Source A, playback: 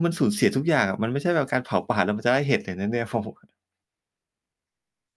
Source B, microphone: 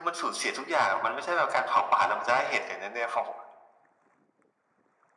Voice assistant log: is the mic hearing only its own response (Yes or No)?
Yes